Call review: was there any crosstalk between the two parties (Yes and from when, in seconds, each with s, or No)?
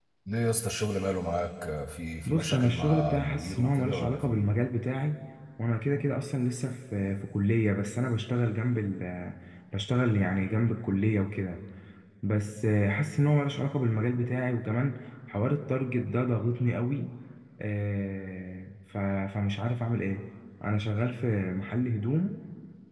Yes, from 2.3 s